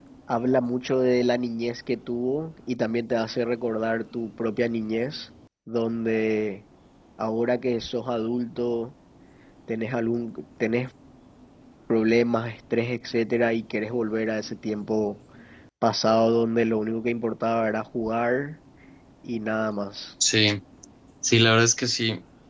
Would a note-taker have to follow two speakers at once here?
No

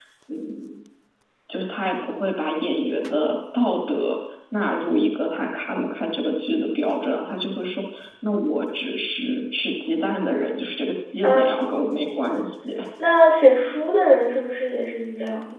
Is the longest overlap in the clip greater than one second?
No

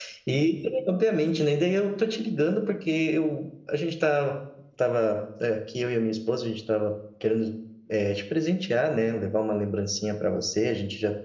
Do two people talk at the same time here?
No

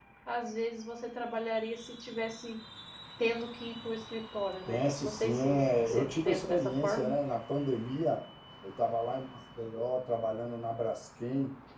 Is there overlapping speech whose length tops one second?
Yes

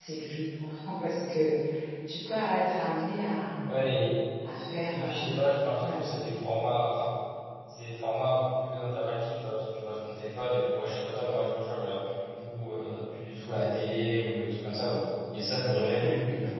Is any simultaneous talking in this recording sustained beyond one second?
No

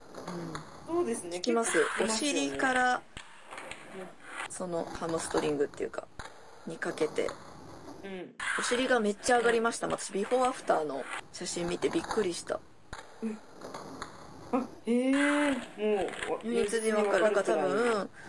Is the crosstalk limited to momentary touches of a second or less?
No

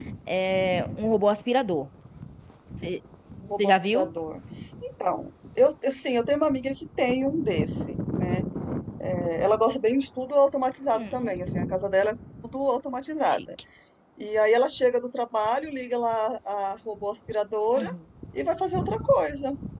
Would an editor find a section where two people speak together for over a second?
No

